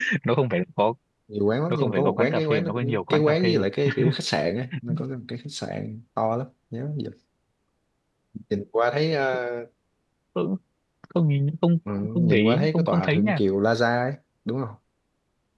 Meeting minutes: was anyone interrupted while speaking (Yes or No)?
Yes